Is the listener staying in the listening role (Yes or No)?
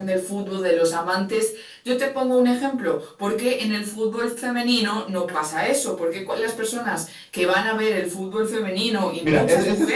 No